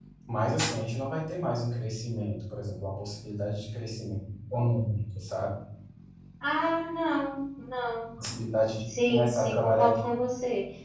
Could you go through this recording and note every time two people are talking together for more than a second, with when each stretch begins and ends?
8.9-10.1

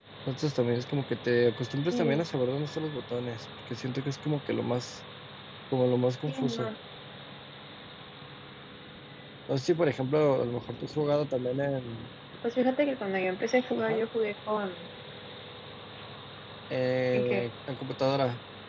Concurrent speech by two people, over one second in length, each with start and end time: none

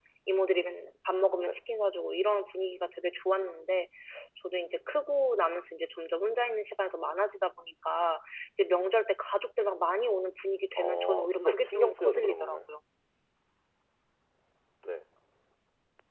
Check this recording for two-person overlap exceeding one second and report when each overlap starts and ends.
10.8-12.6

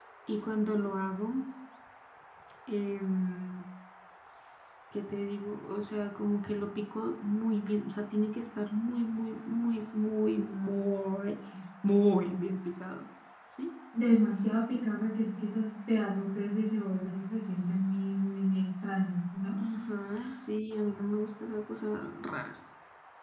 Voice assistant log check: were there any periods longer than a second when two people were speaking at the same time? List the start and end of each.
none

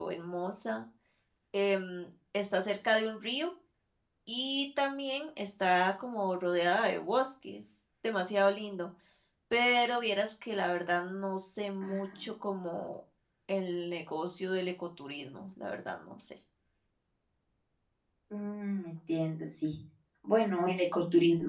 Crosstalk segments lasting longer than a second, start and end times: none

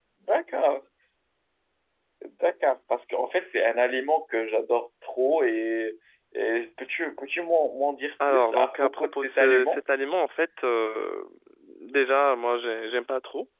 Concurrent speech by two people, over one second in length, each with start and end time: 8.3-9.8

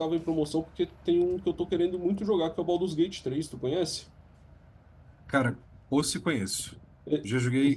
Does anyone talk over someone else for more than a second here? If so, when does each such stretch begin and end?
none

